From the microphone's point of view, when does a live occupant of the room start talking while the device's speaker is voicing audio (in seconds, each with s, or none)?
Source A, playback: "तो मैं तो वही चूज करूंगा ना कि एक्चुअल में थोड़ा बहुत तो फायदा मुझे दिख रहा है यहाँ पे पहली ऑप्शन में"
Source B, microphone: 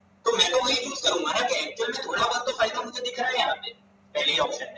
none